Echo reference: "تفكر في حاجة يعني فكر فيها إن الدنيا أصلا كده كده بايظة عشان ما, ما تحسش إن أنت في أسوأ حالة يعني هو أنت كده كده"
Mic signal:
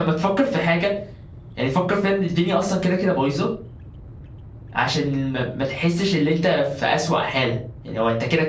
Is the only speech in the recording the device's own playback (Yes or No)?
Yes